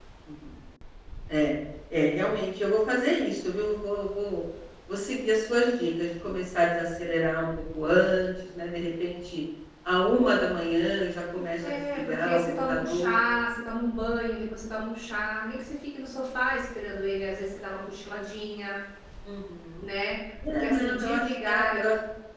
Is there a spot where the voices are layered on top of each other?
Yes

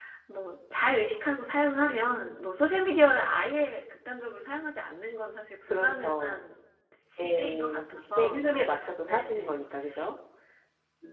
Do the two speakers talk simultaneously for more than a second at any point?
Yes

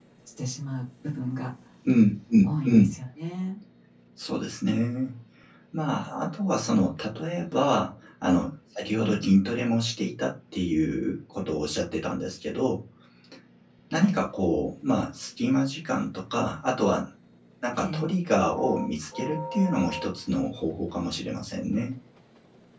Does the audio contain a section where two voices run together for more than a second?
No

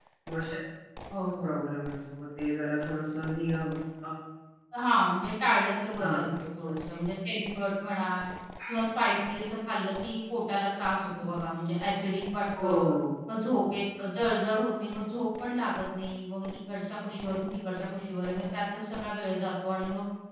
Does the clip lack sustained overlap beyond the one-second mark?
Yes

